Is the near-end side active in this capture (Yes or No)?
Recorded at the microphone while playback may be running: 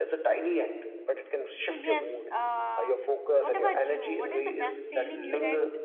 Yes